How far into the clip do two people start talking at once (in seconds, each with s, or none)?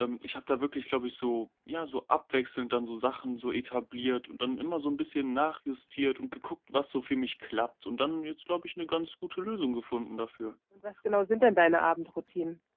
none